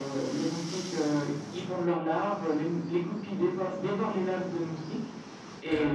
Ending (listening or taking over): listening